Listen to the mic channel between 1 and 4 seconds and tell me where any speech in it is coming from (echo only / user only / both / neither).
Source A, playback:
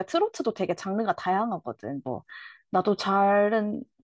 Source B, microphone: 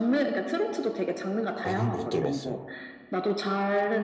both